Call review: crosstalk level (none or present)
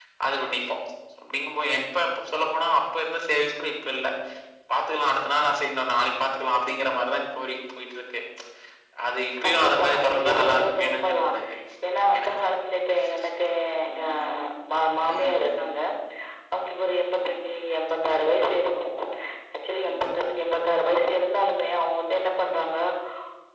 present